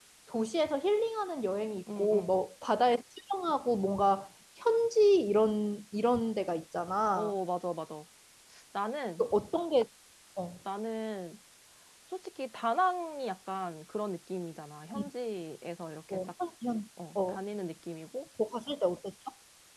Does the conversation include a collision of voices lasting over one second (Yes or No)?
No